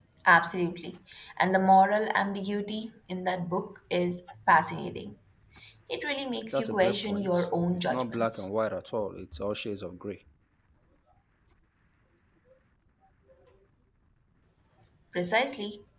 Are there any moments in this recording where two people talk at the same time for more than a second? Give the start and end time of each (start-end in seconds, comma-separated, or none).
6.5-8.5